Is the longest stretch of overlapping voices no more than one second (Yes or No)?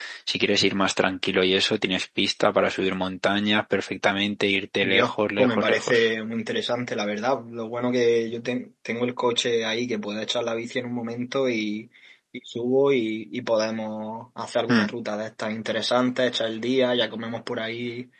No